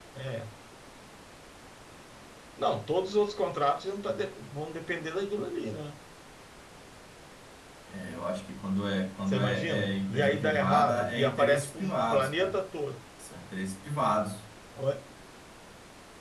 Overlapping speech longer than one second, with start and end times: 9.3-12.6

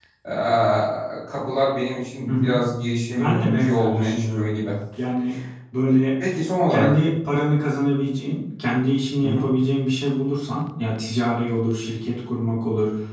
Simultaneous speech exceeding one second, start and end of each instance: 3.1-4.5

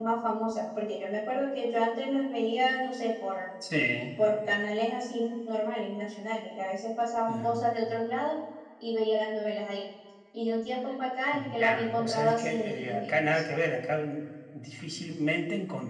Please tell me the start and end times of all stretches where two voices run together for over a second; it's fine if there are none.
11.3-13.4

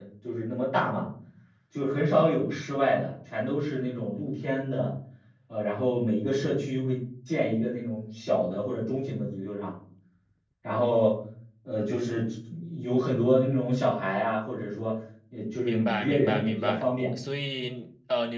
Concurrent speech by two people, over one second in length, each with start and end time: 15.6-16.9

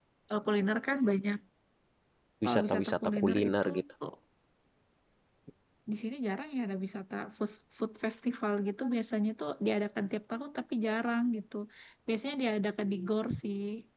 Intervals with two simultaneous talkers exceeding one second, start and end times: 2.4-3.8

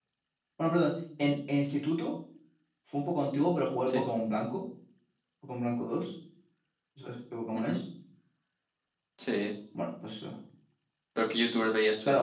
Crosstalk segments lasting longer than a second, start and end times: none

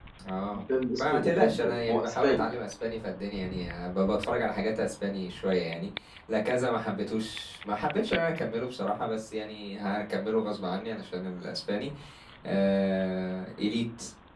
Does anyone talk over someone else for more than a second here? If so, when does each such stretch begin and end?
1.0-2.5

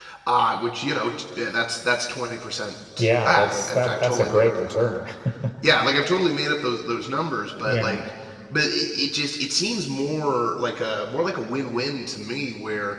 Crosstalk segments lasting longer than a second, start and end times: 3.0-5.0

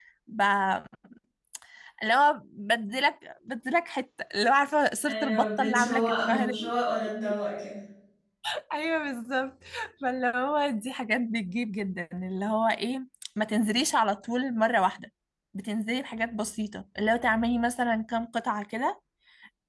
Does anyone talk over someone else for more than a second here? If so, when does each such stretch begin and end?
5.1-6.5

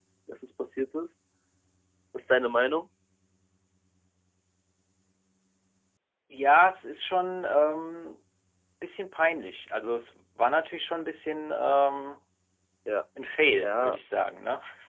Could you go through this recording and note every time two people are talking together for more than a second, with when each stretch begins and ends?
none

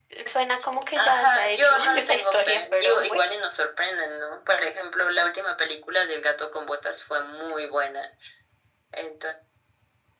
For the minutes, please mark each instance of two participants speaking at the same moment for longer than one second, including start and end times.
0.9-3.2

